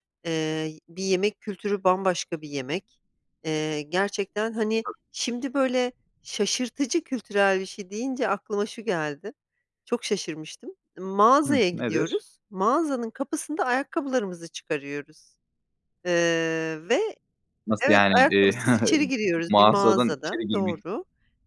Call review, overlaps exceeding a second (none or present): present